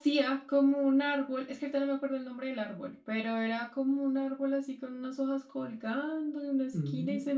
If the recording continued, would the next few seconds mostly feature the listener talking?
No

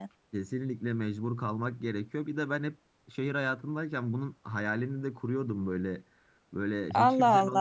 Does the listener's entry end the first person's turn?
Yes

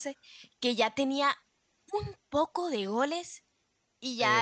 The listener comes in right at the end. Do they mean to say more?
No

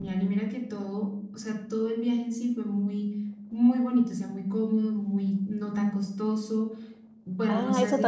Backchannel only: No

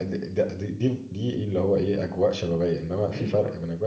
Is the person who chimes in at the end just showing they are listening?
Yes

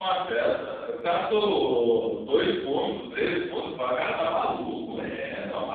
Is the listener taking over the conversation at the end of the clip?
Yes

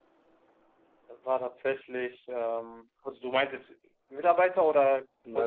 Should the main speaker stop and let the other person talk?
Yes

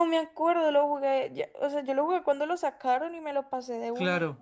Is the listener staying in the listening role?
No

